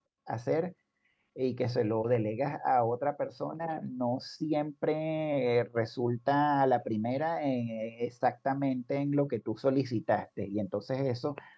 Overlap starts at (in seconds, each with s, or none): none